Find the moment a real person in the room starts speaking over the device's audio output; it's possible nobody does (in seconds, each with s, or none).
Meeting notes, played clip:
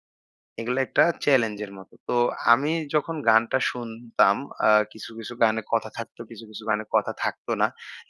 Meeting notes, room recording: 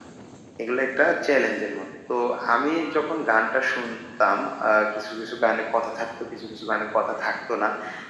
none